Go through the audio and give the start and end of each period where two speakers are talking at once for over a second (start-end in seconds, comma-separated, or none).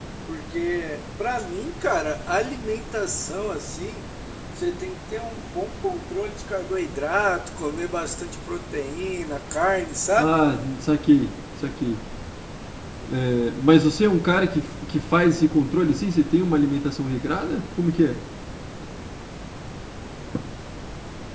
none